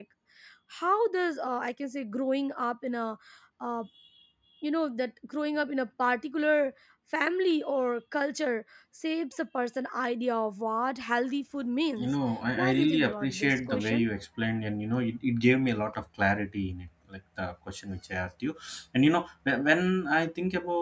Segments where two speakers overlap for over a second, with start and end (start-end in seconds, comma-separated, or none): 12.6-14.1